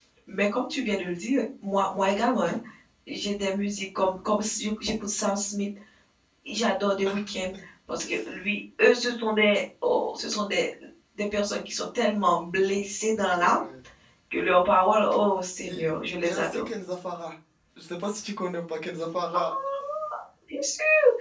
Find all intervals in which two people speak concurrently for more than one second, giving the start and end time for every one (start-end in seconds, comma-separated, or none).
none